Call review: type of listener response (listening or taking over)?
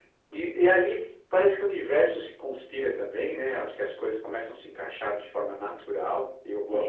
listening